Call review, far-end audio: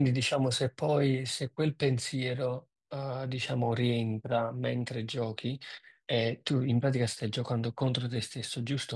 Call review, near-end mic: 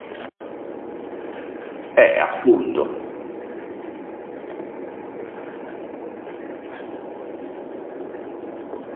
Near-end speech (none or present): present